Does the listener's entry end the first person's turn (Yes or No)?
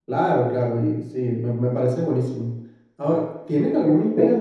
No